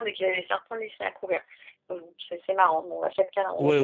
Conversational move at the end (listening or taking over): taking over